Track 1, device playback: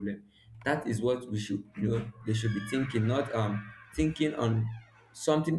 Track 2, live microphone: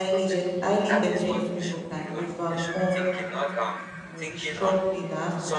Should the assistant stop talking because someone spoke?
Yes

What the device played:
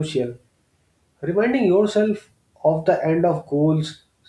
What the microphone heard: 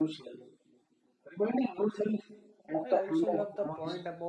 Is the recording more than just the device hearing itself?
Yes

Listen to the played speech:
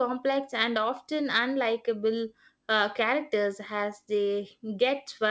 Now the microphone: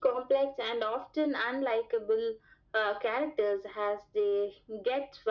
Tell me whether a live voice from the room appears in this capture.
No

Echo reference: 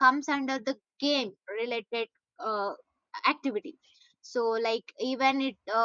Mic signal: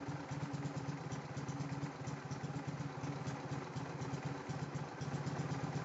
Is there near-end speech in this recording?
No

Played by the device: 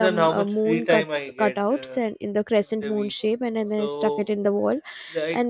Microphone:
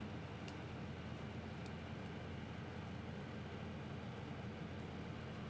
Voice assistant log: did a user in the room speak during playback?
No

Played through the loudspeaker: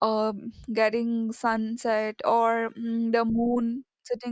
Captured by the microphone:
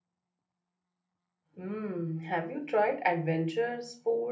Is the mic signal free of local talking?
No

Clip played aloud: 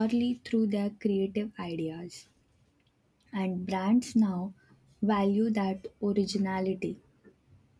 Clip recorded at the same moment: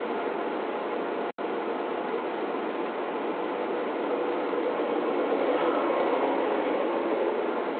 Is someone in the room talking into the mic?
No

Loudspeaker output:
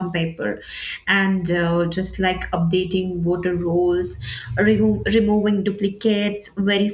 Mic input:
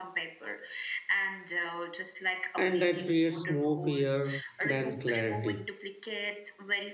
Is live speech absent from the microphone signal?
No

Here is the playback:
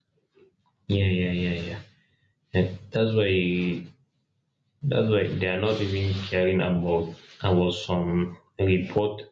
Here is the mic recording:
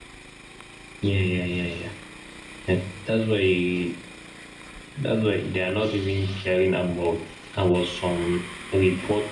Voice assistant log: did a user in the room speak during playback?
No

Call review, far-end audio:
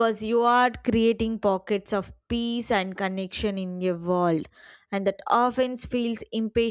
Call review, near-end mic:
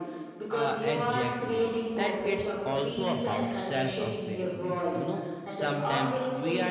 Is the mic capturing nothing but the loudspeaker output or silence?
No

